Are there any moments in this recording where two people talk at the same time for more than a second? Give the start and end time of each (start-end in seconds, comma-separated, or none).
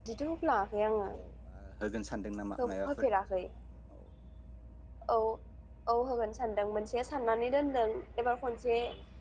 none